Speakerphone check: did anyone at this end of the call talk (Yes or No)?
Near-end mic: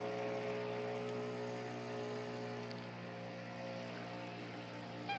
No